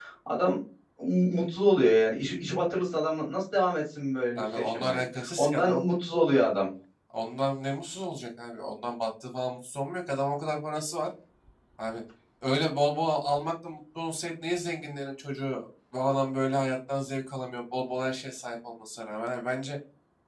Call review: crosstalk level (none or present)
present